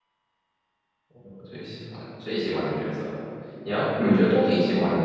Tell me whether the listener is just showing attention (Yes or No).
Yes